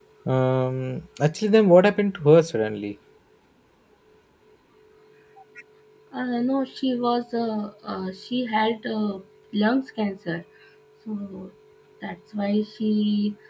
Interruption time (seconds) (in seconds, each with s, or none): none